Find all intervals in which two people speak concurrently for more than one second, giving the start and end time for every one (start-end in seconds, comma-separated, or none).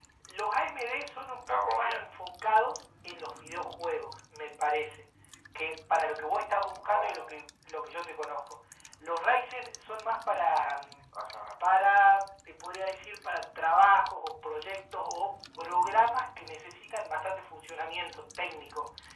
none